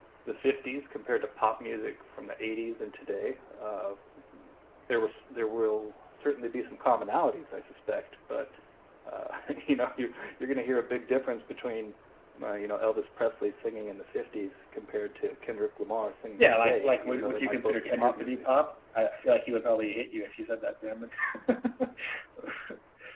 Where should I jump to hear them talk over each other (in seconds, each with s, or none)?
16.4 s